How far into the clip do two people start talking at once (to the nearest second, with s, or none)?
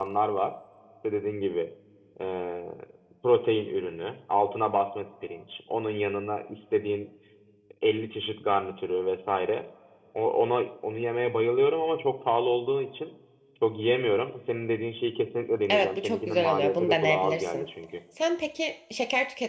16 s